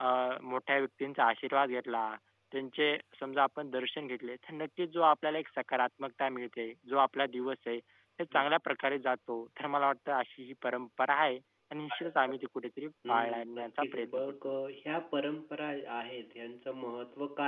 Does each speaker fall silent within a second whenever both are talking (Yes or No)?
No